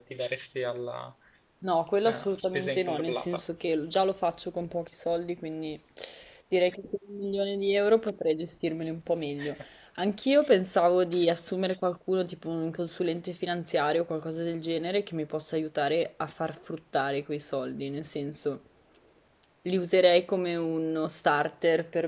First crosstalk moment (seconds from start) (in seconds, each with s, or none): 2.0 s